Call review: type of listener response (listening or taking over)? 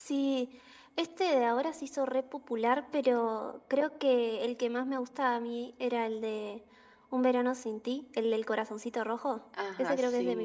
taking over